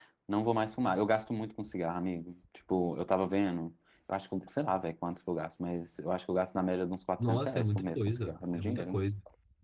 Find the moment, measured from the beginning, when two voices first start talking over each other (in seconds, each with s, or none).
7.2 s